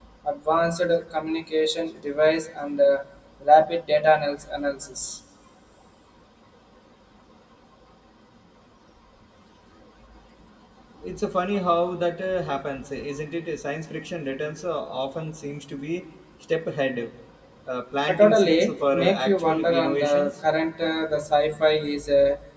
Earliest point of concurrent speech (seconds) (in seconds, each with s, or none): 18.1 s